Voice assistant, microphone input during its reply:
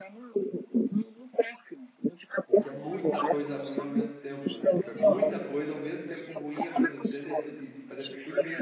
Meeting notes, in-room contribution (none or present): present